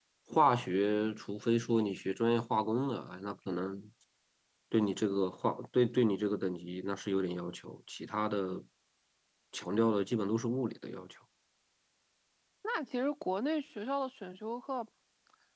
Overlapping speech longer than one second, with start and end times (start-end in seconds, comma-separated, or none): none